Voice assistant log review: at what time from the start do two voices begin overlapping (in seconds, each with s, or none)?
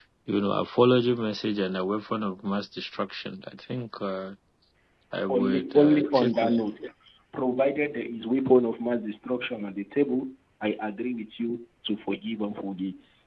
5.3 s